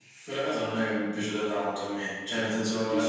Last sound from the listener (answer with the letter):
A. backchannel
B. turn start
B